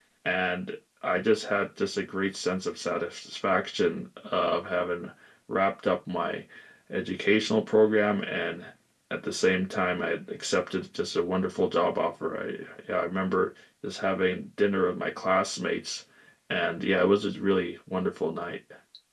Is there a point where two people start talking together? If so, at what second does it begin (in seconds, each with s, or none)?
none